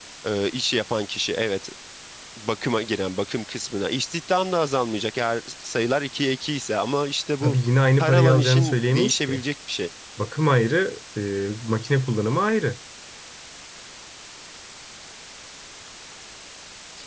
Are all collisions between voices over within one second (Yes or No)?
No